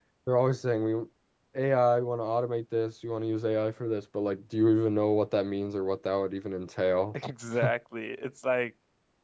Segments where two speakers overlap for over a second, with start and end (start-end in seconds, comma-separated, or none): none